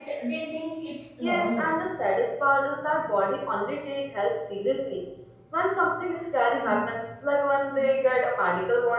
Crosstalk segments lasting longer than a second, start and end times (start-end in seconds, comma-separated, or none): none